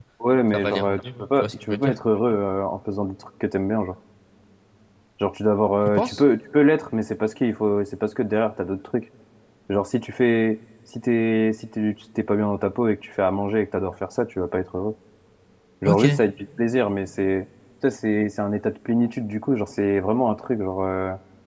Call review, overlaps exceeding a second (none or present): present